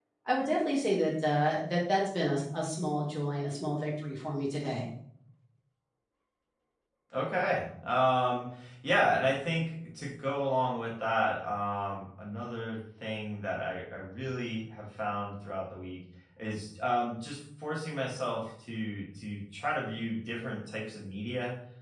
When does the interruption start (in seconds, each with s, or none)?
none